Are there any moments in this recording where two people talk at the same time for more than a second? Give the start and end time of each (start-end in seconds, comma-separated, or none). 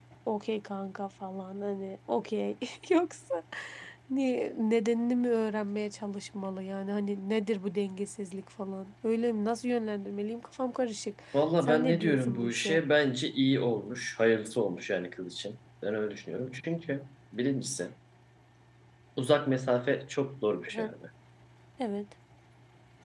11.6-12.8